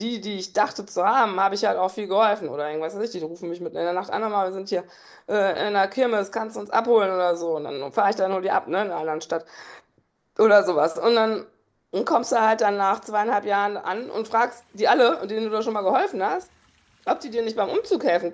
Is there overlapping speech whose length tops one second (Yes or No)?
No